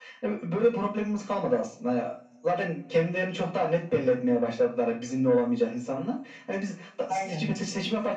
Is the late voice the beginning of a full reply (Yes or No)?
No